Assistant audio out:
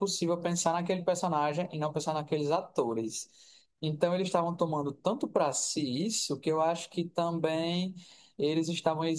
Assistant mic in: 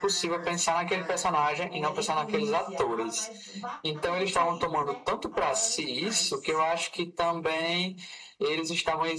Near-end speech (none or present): present